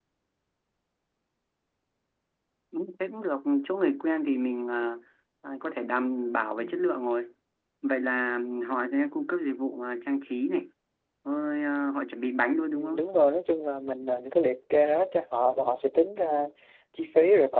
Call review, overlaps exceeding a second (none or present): none